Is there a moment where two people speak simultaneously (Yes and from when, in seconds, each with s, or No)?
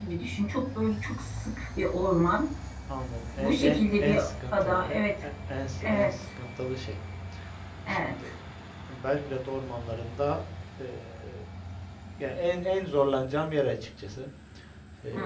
Yes, from 3.4 s